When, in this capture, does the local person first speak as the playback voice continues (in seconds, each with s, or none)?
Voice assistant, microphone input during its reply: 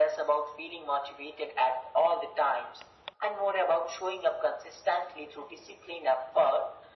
none